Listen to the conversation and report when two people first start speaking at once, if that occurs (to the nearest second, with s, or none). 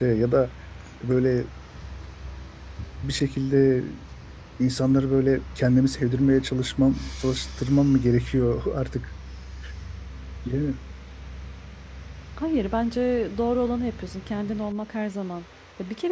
none